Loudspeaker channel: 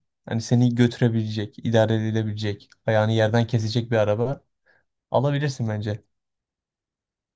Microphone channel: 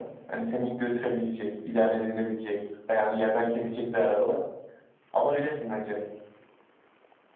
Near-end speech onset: none

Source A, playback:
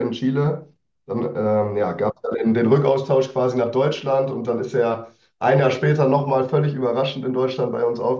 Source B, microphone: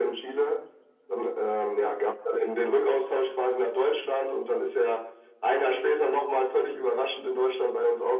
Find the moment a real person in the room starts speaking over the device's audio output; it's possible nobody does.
none

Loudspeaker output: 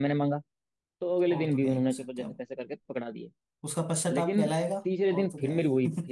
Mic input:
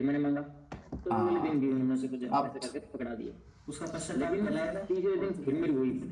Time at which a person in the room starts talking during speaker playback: 1 s

